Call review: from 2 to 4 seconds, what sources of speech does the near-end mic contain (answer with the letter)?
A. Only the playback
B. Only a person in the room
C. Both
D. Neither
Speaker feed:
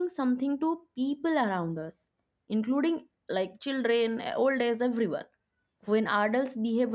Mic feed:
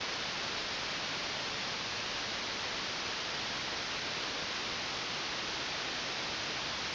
D